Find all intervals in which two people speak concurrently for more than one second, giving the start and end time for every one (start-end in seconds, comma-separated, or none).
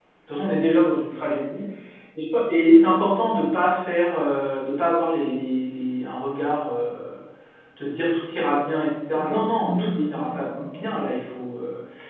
9.1-11.0